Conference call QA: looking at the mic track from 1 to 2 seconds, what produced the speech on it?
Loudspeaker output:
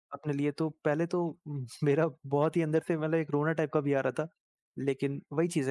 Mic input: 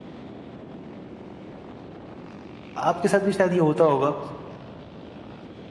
neither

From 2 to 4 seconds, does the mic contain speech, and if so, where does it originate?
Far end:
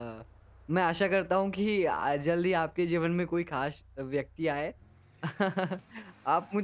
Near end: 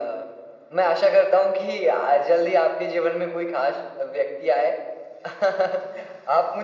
echo only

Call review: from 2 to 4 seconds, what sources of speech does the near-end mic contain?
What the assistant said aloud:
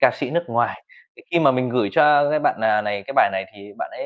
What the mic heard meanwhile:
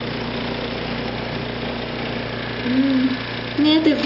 user only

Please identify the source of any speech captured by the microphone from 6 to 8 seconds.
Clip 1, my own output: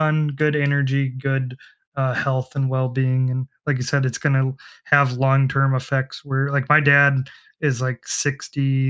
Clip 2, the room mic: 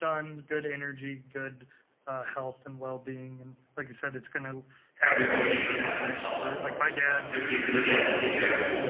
both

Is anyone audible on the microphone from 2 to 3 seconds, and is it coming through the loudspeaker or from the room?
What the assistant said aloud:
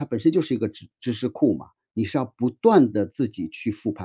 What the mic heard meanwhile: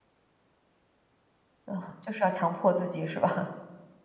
user only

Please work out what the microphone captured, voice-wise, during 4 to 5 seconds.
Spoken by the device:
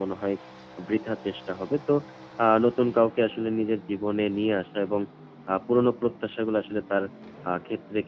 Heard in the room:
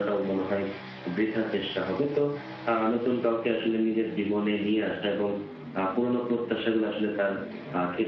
echo only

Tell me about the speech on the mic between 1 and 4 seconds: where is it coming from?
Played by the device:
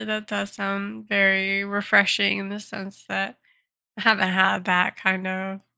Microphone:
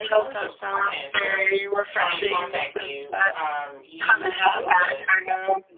both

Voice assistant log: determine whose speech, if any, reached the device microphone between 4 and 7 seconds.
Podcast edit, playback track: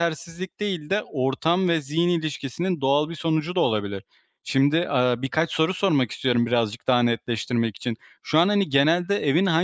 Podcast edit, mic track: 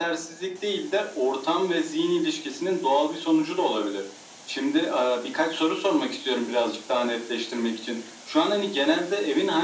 echo only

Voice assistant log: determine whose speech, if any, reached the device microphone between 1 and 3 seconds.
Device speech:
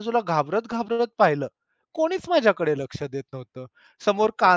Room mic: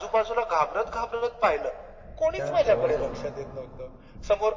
both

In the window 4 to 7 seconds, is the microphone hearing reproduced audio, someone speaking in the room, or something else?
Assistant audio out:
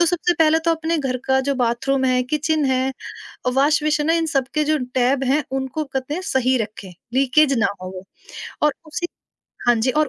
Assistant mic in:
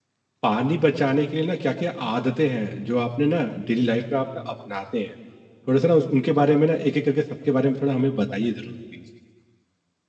user only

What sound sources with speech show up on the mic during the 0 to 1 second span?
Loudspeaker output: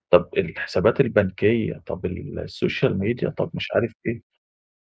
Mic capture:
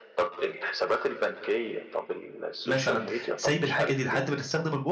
echo only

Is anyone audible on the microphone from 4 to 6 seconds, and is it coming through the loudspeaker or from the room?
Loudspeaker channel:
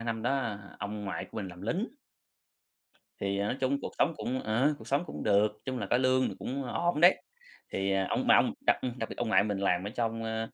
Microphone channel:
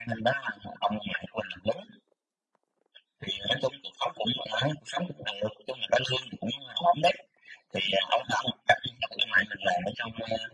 echo only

